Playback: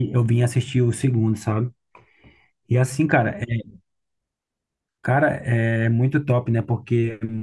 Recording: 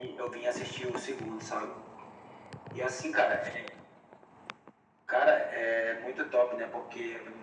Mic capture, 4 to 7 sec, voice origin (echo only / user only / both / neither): echo only